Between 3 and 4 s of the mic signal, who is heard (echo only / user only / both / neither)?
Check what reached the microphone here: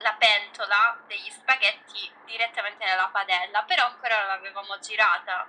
echo only